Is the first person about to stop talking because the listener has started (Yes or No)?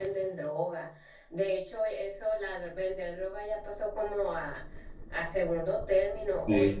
No